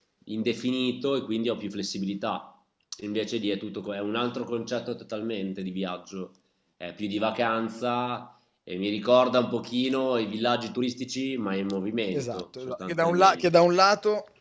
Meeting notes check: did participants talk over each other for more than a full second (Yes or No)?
Yes